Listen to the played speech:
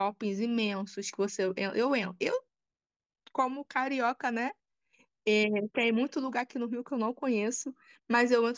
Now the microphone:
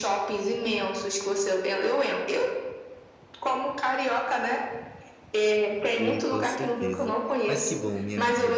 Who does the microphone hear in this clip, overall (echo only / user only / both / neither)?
both